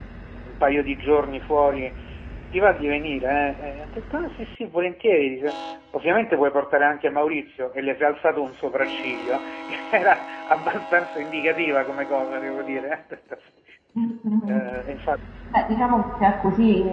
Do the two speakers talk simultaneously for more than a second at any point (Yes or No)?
No